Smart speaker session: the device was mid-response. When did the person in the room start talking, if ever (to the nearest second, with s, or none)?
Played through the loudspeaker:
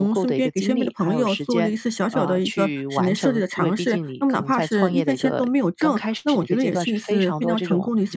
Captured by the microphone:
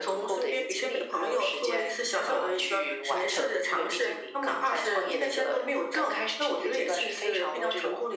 none